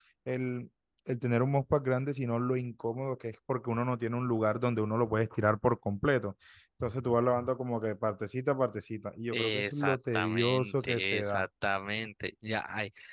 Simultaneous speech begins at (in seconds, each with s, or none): 9.3 s